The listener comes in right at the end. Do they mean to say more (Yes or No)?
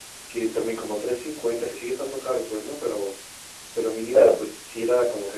No